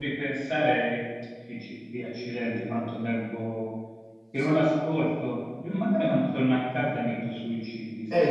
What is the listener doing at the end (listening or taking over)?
taking over